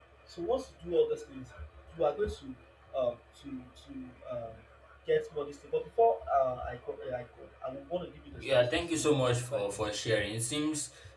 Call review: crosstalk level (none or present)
present